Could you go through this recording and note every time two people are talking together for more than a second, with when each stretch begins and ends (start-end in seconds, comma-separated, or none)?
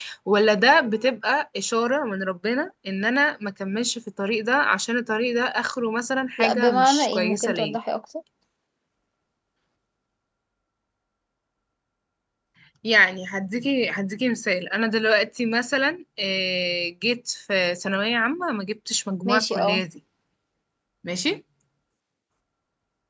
6.4-7.8